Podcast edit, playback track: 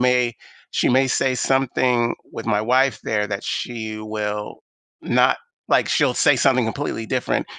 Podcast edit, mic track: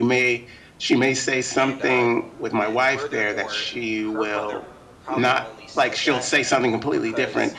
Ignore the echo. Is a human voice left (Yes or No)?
Yes